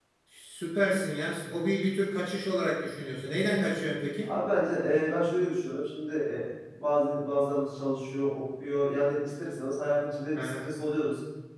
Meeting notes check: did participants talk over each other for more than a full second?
No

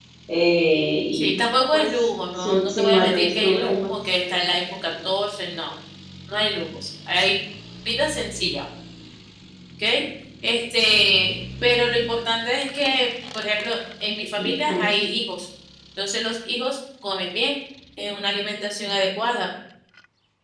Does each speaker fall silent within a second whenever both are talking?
No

